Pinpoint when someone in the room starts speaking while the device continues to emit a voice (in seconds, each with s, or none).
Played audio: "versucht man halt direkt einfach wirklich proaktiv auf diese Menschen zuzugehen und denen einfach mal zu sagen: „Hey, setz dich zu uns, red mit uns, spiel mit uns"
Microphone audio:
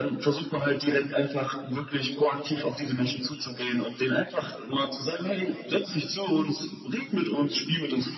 none